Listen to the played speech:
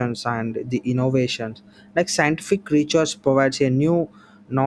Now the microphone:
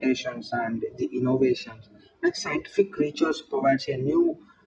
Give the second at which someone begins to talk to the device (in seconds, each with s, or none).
none